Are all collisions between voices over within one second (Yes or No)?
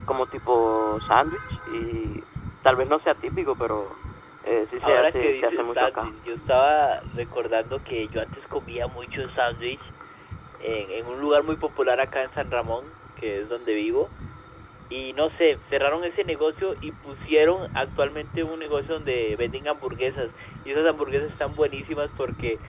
No